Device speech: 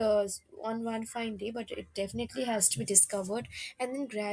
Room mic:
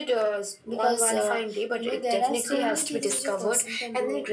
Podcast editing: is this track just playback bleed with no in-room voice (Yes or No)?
No